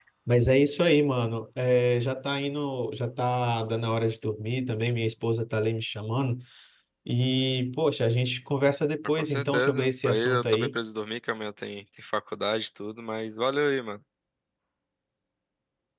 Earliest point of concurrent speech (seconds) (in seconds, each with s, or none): 9.2 s